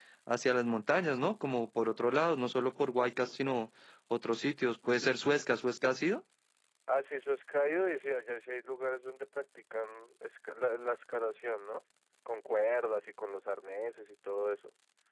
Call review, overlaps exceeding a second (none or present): none